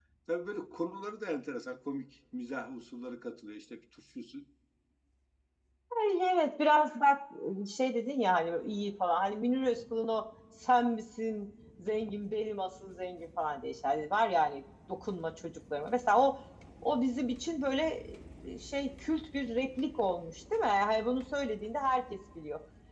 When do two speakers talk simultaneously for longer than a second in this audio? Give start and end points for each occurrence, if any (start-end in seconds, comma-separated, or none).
none